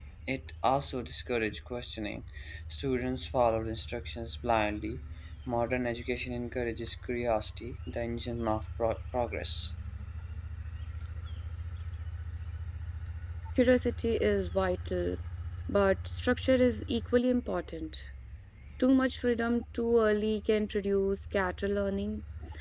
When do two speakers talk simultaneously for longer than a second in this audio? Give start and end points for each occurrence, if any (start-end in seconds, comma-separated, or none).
none